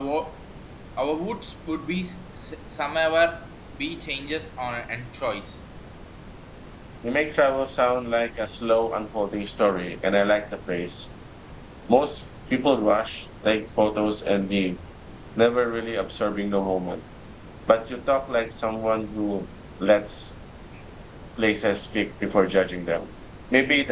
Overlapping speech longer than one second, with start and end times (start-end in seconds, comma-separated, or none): none